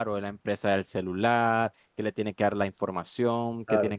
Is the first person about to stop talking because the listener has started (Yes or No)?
No